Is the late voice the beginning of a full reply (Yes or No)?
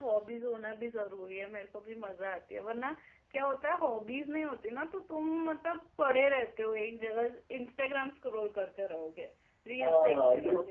Yes